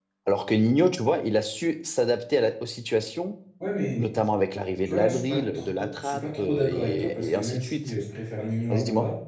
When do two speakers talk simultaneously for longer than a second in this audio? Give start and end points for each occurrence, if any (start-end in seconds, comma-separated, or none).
4.8-7.8